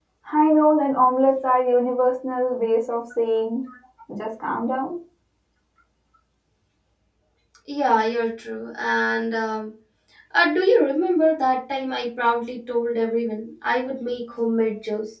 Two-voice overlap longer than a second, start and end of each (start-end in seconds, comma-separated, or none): none